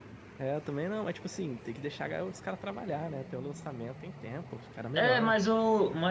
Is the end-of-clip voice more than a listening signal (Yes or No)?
Yes